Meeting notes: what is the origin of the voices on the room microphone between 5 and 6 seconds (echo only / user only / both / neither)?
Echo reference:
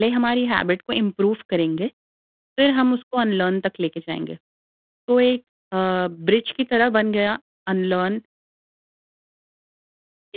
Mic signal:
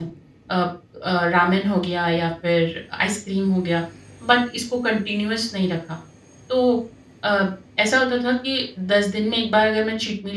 user only